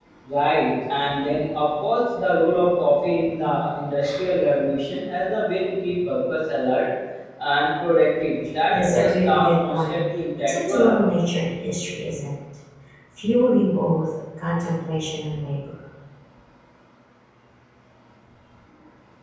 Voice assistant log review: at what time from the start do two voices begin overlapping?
8.7 s

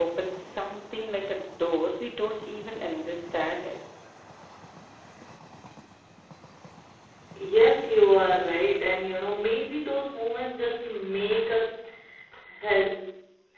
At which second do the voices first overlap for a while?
none

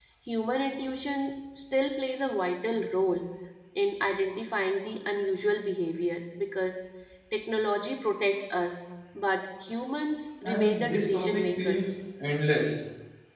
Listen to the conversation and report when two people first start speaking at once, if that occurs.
10.4 s

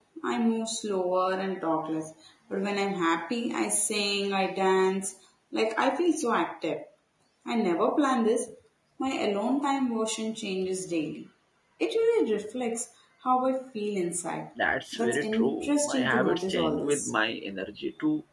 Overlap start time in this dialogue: 14.9 s

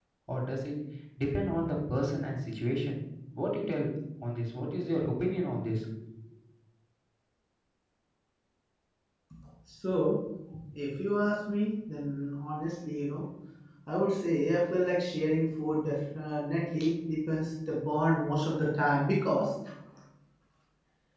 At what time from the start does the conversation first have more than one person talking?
none

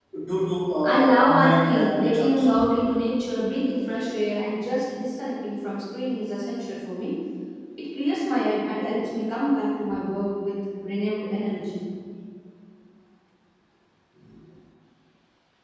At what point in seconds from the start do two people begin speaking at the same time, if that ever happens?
0.8 s

